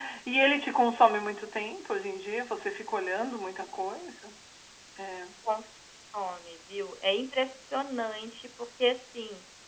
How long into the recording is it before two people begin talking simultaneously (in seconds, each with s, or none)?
none